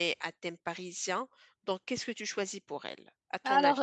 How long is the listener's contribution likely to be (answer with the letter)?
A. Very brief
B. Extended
B